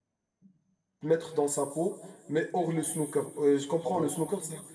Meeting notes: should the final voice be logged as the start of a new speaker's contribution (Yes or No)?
No